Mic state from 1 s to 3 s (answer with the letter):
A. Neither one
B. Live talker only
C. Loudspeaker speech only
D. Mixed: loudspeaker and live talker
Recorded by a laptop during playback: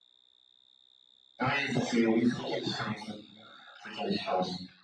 C